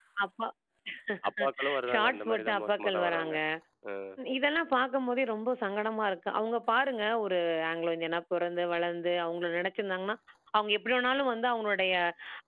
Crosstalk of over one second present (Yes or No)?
Yes